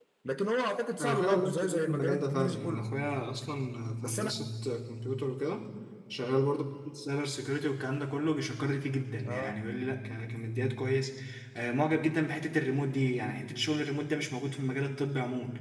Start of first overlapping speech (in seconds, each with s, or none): 1.0 s